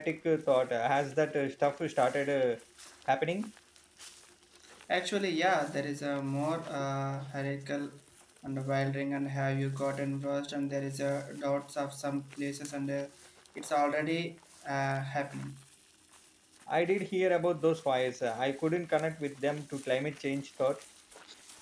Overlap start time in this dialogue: none

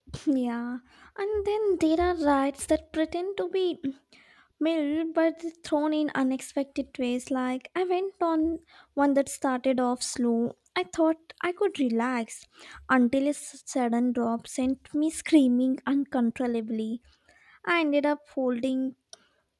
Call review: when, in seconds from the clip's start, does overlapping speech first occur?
none

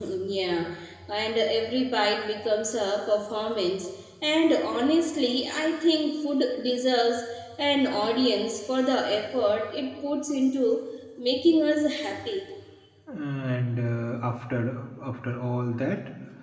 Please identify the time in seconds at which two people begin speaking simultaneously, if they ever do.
none

